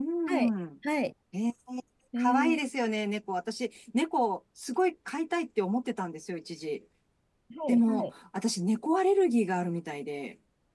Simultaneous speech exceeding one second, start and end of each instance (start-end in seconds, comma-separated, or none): none